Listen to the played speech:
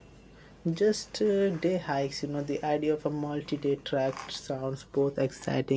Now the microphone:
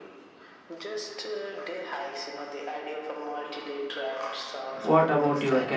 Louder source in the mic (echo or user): user